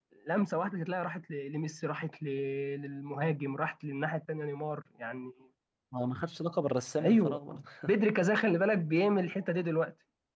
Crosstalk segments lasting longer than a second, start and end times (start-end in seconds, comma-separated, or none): none